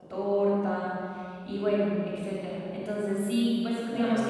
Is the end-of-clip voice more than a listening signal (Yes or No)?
No